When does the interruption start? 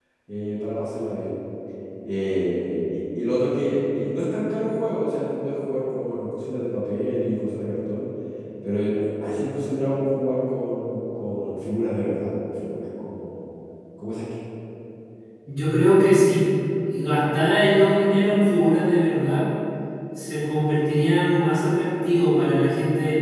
none

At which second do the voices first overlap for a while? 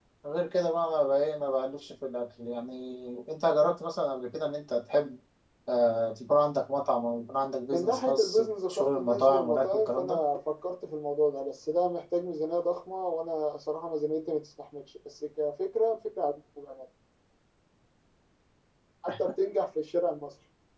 7.7 s

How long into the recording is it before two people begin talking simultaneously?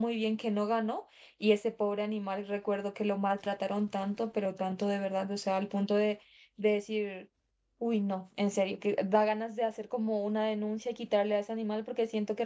none

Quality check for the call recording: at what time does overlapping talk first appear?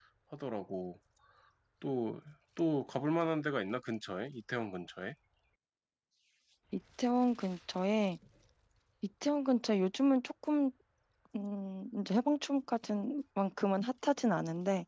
none

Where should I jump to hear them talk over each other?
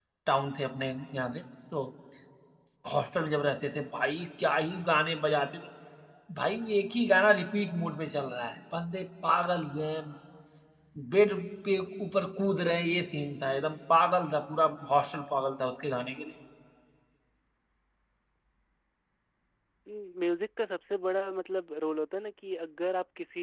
none

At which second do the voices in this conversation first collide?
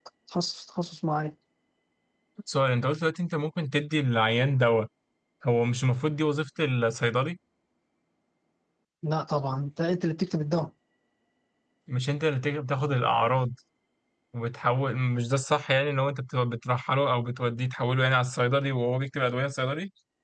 none

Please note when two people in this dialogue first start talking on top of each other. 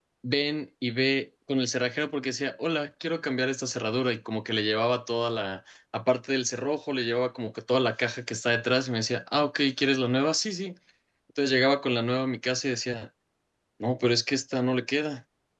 none

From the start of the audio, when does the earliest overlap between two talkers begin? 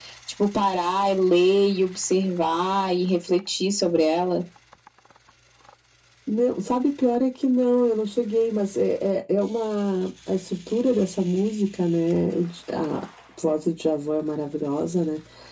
none

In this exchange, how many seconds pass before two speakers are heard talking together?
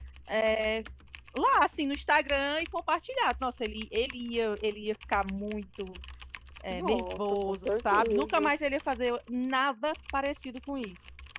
6.7 s

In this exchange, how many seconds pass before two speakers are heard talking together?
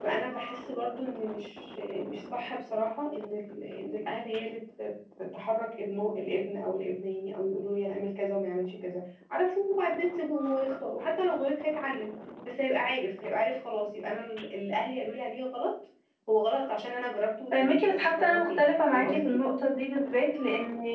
17.5 s

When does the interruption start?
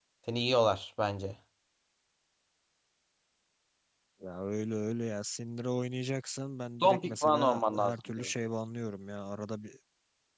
6.8 s

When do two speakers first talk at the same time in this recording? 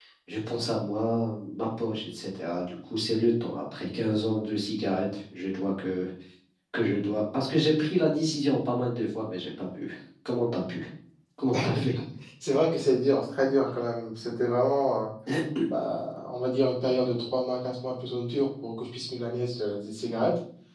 none

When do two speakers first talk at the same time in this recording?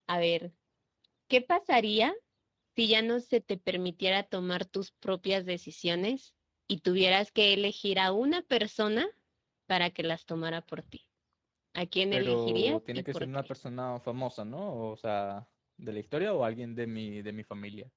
12.1 s

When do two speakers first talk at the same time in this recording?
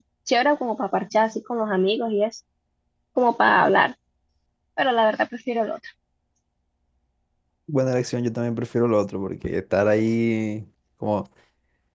none

